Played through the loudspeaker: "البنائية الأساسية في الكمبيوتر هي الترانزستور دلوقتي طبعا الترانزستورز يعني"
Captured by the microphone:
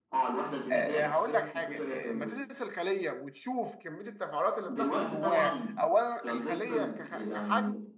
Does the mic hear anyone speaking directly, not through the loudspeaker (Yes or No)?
Yes